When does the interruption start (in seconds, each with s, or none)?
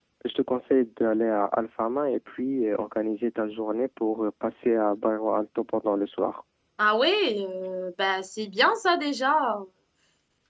none